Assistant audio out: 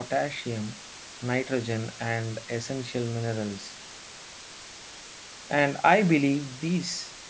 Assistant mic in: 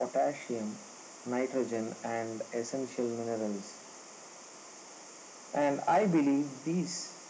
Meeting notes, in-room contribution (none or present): none